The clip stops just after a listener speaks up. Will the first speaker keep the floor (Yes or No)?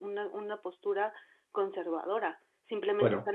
Yes